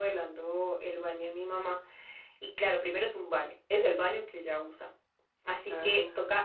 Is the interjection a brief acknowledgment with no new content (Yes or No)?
Yes